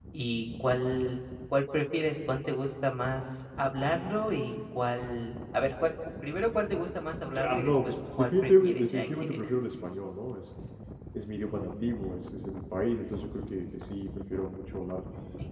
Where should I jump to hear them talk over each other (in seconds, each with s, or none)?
7.3 s